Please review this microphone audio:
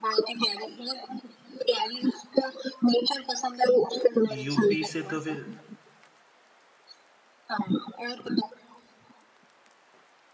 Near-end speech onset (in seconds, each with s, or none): 4.3 s